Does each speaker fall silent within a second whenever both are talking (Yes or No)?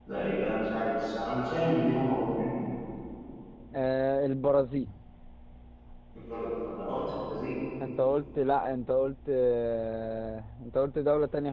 Yes